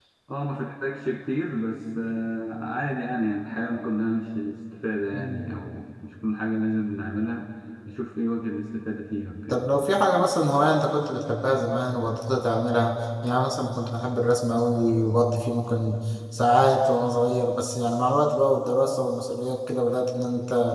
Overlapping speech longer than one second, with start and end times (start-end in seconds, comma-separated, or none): none